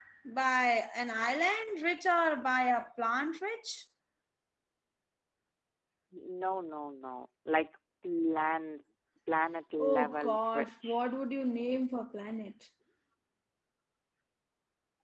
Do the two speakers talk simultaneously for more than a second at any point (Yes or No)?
Yes